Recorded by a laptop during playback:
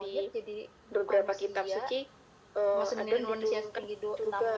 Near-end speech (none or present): none